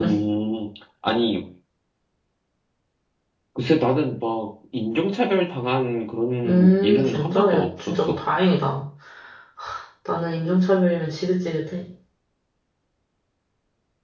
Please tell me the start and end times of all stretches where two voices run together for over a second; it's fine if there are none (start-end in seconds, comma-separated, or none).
6.4-8.2